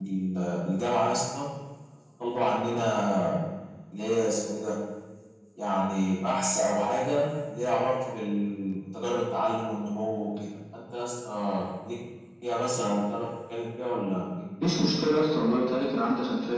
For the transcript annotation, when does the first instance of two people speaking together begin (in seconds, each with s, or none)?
none